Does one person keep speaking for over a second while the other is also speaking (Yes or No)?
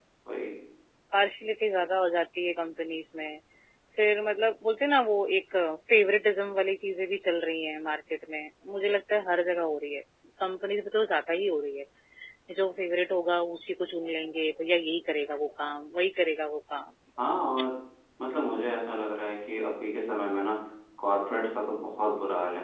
No